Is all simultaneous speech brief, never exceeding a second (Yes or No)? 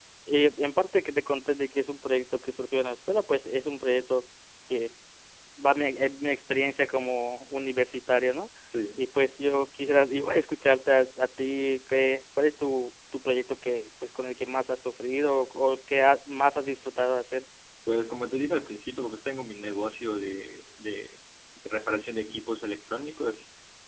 Yes